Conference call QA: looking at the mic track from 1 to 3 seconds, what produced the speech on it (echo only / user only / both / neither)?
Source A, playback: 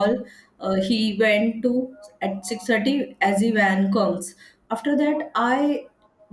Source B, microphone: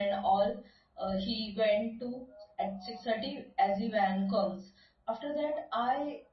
echo only